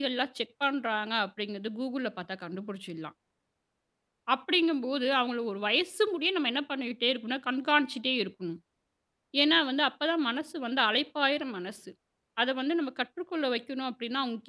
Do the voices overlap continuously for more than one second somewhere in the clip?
No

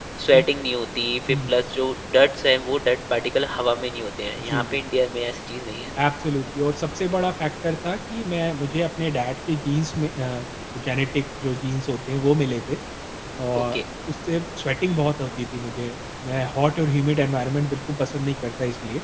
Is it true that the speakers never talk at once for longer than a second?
Yes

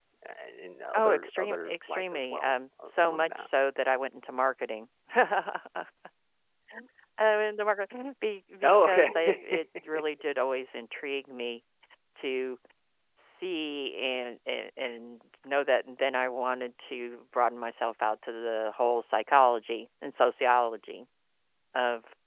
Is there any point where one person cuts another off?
Yes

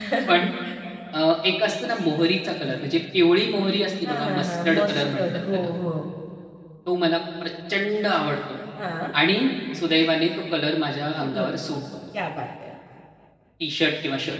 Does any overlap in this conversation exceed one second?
Yes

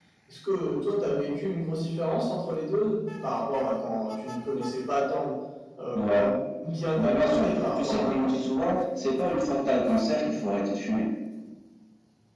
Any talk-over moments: Yes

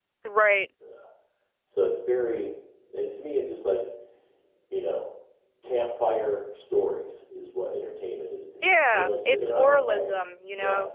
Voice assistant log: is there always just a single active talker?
No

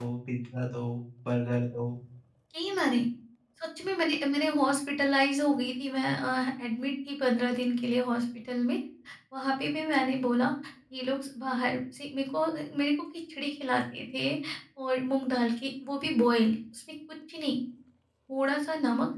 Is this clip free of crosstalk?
Yes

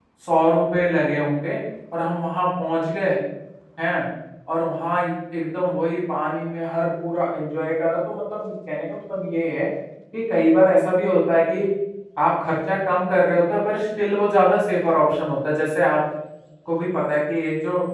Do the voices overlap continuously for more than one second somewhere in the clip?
No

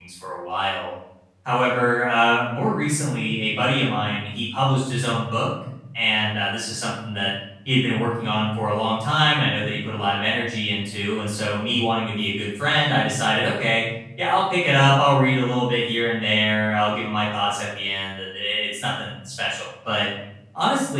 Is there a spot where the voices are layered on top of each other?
No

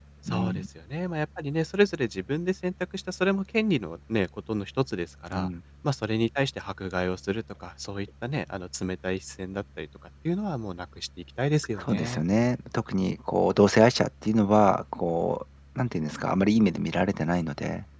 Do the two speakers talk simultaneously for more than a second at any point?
No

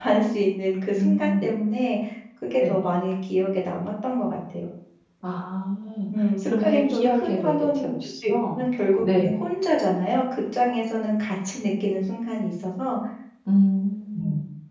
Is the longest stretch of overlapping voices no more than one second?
No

